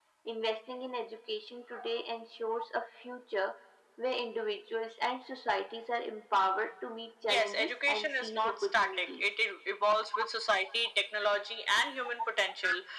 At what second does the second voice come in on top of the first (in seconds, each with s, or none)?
7.2 s